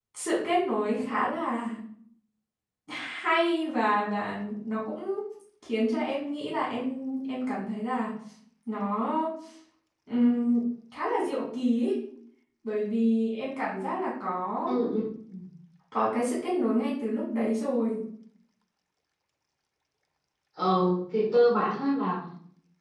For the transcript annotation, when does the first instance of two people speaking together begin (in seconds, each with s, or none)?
none